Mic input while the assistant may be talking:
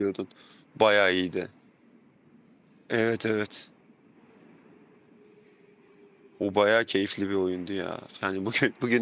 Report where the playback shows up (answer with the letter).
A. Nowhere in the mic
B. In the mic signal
A